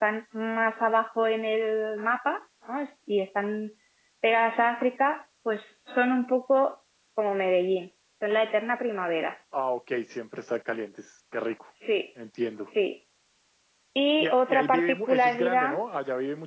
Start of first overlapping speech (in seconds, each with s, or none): 14.2 s